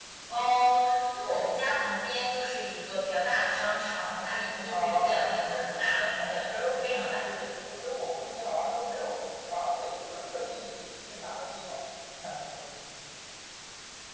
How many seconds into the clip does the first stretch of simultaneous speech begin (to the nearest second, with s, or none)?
5 s